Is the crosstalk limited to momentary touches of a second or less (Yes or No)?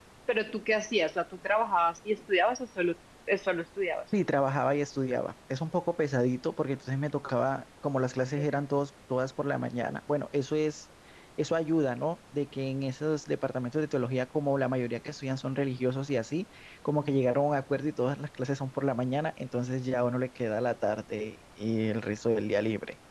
Yes